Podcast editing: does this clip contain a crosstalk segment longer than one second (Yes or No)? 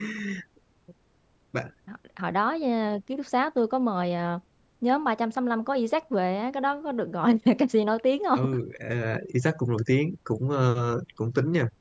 No